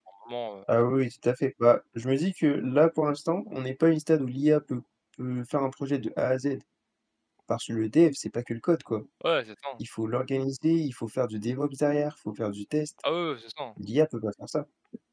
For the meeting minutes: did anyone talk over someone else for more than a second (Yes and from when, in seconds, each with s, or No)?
No